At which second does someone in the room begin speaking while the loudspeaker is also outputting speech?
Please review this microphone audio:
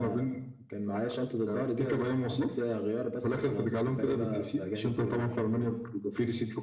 none

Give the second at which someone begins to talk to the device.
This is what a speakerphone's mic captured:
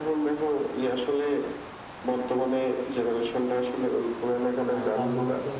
5 s

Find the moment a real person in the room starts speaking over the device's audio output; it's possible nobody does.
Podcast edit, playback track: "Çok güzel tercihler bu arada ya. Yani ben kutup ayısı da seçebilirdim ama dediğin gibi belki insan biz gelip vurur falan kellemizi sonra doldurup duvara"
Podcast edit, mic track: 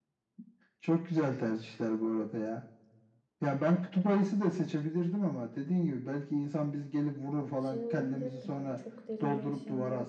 8 s

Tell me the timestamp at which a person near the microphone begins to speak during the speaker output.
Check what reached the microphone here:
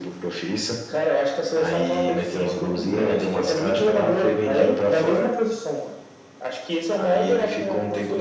none

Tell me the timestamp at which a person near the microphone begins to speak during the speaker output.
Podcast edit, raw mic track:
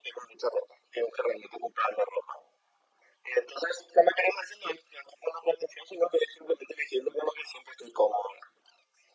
none

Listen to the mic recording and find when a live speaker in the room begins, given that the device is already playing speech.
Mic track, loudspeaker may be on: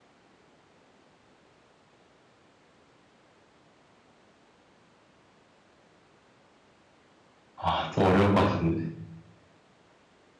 8 s

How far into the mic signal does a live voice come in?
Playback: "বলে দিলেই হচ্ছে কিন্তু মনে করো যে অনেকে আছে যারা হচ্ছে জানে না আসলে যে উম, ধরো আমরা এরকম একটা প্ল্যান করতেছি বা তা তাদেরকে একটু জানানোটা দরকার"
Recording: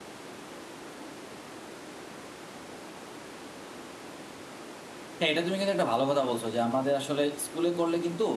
5 s

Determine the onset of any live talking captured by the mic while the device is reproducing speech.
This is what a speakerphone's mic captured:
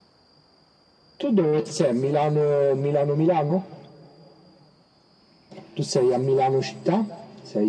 none

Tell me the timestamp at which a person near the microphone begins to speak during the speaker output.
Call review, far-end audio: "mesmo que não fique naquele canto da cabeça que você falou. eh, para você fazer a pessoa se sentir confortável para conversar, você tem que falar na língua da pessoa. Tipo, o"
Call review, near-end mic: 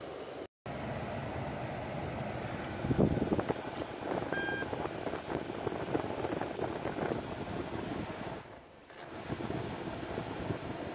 none

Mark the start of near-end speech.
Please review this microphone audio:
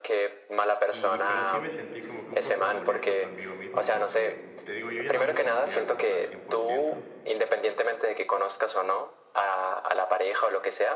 1 s

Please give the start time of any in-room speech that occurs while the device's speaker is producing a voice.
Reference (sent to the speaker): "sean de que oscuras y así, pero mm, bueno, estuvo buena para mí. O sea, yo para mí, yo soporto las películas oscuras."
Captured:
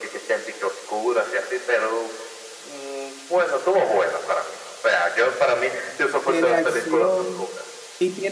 6 s

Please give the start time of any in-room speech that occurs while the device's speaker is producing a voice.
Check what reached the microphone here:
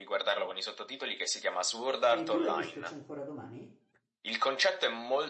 2 s

